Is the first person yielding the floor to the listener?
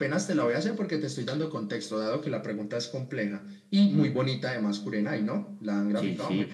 Yes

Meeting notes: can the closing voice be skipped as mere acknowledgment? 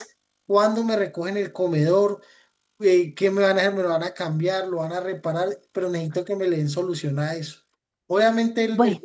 Yes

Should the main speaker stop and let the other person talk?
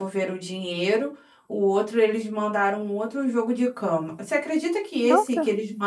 No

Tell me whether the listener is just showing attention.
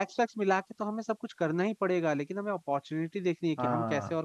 Yes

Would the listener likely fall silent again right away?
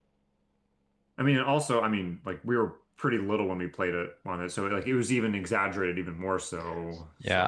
No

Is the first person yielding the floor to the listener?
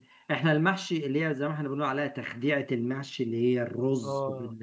No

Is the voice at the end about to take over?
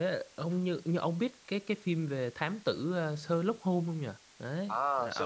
Yes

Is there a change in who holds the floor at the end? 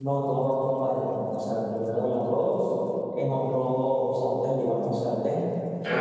No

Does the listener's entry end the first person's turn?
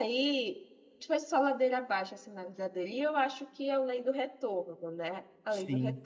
Yes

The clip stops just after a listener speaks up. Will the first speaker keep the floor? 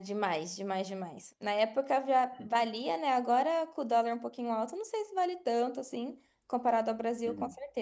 Yes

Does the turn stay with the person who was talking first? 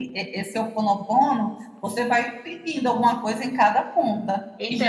No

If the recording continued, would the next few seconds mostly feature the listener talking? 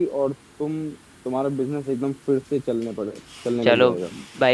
Yes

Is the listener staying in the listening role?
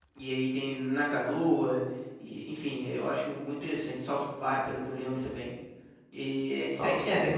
No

